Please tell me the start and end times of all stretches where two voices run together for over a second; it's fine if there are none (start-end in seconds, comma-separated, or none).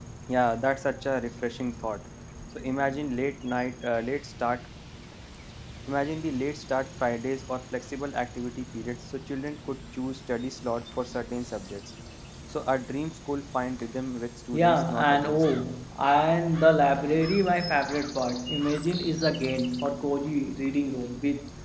14.5-15.7